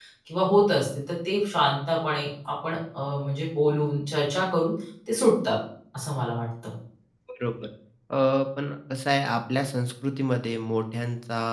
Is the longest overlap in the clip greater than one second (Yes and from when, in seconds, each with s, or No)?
No